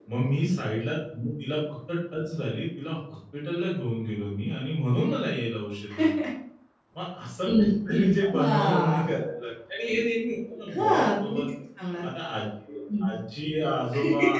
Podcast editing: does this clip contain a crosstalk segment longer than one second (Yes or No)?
Yes